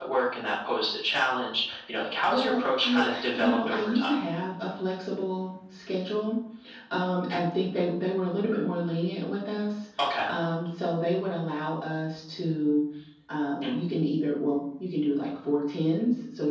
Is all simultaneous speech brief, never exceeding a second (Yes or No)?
No